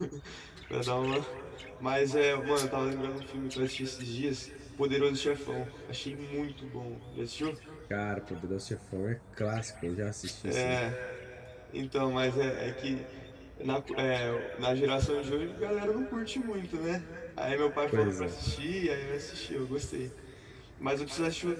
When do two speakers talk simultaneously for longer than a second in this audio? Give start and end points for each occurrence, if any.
none

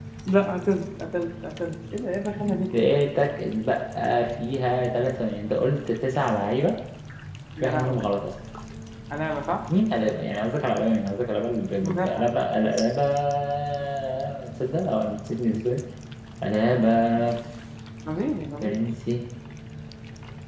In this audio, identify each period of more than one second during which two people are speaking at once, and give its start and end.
none

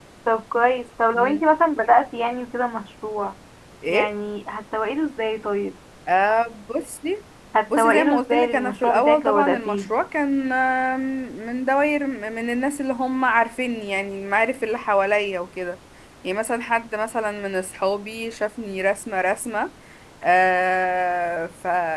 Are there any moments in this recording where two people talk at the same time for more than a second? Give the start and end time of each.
7.8-9.9

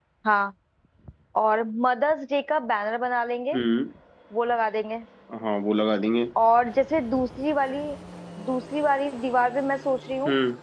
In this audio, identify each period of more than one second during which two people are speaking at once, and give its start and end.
none

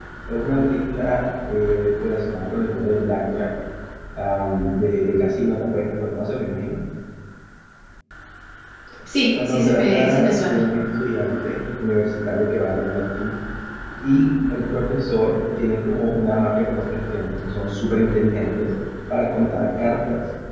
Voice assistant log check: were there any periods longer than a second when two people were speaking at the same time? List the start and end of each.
9.3-10.6

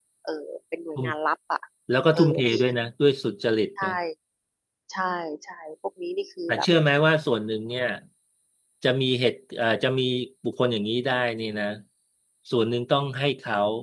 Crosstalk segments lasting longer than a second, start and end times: none

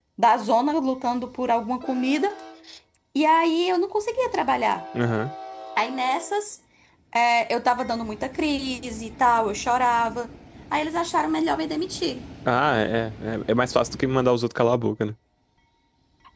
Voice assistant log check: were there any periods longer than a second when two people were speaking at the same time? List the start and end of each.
none

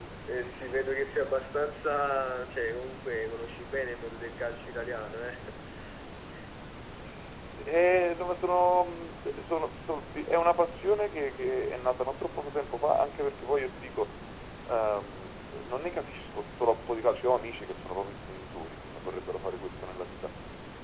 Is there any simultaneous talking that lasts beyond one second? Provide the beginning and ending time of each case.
none

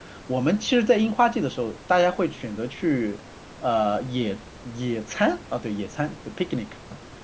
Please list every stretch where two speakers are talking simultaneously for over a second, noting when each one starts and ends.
none

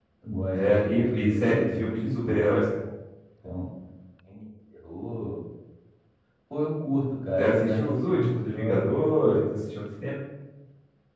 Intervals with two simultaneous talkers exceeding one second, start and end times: 0.5-2.5, 7.4-9.4

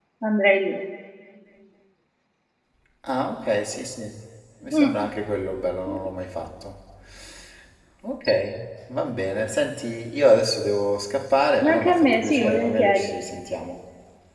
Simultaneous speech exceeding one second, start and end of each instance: 11.6-13.1

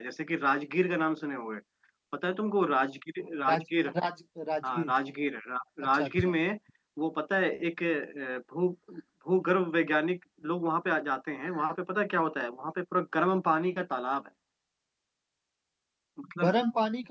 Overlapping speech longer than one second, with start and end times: none

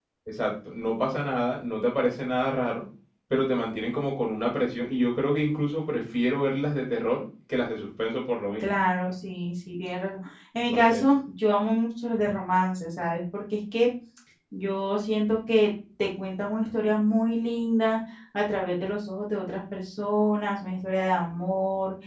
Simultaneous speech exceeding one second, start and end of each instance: none

